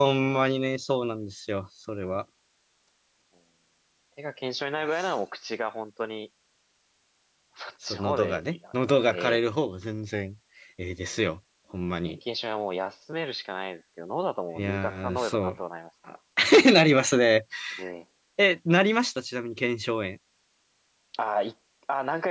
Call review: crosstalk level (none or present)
present